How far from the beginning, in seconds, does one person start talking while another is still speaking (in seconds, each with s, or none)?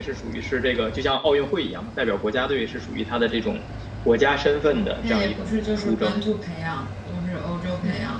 4.7 s